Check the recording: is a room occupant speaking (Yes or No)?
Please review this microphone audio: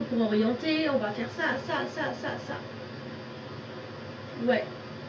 No